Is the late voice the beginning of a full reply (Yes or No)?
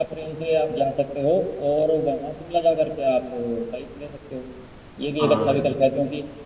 No